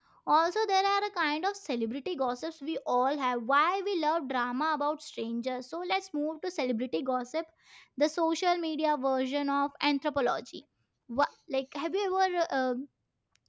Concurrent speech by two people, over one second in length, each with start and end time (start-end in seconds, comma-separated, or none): none